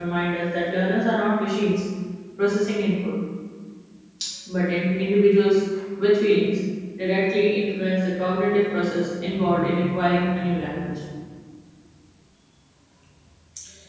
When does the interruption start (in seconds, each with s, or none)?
none